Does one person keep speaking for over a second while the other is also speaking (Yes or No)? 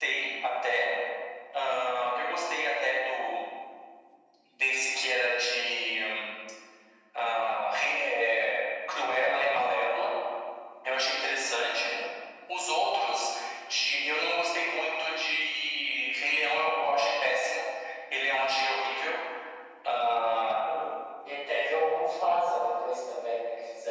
No